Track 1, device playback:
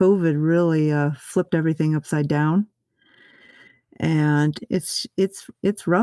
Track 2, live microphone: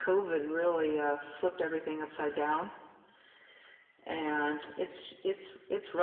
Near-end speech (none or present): none